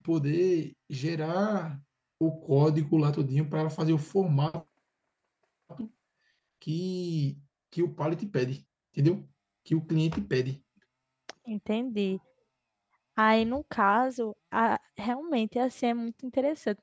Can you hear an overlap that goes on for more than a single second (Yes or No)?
No